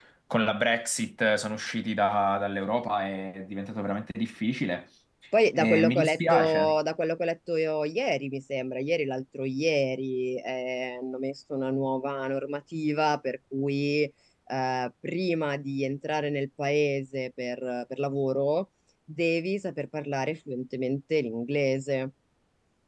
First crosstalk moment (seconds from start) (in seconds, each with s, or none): 5.6 s